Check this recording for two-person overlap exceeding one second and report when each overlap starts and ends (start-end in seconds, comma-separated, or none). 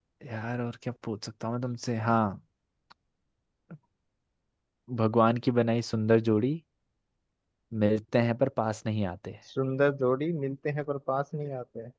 none